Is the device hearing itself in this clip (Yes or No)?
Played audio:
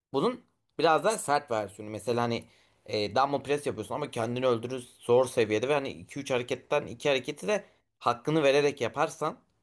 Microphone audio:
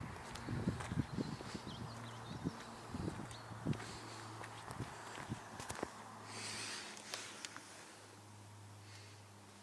No